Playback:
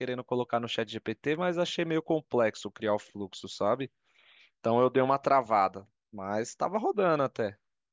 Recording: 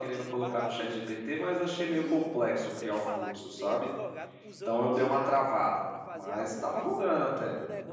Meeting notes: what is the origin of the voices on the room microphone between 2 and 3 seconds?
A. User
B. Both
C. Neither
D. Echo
B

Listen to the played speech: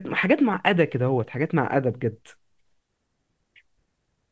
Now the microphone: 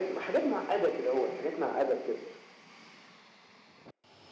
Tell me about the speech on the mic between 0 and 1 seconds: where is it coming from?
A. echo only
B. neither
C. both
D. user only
A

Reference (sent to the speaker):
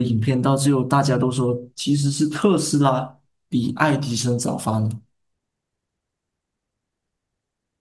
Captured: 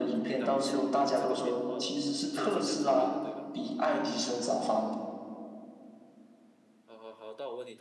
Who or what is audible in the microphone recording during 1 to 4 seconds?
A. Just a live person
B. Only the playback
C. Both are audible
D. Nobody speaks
C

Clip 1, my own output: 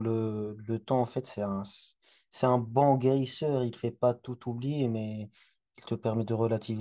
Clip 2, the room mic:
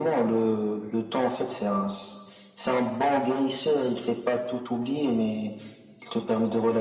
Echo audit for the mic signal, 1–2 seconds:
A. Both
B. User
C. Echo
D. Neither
C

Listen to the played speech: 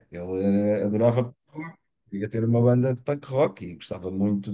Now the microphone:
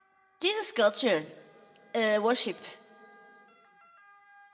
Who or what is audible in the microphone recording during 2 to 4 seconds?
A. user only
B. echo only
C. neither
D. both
A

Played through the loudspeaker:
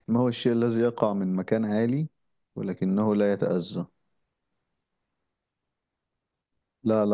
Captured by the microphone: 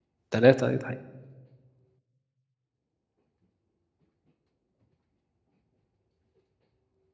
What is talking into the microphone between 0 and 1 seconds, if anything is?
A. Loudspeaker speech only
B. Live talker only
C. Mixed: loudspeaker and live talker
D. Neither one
B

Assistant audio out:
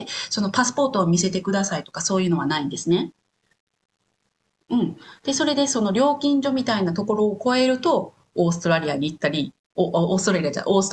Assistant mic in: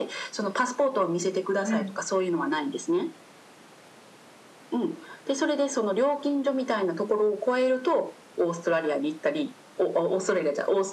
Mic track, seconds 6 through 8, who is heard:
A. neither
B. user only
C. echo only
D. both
C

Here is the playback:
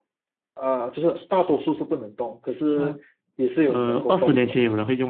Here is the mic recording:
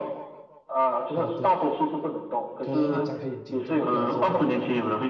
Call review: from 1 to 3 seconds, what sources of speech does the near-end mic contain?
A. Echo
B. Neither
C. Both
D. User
C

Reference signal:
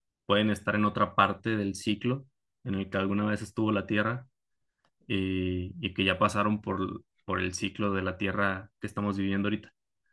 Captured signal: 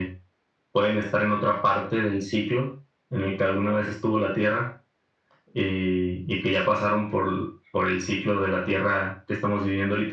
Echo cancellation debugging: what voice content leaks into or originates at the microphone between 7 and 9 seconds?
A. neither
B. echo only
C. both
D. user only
B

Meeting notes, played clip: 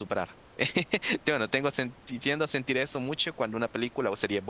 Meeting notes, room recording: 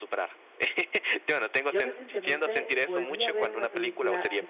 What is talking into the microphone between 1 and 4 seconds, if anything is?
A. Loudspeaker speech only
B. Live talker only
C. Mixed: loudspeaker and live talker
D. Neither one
C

